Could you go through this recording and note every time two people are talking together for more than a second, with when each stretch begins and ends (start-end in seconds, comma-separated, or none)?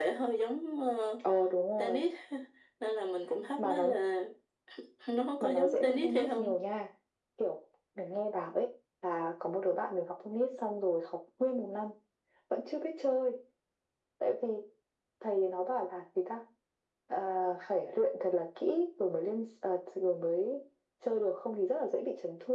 5.4-6.6